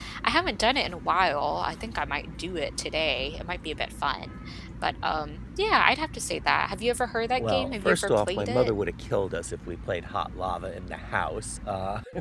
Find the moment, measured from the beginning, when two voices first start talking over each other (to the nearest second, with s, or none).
7 s